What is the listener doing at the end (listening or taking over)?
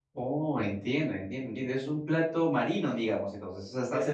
taking over